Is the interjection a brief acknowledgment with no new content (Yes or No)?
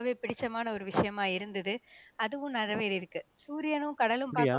Yes